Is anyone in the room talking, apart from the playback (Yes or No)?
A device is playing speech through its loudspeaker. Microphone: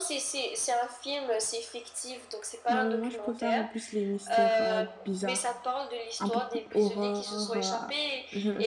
Yes